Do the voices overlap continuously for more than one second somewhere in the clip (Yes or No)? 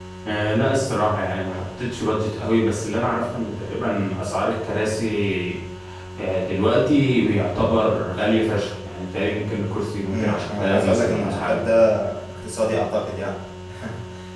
Yes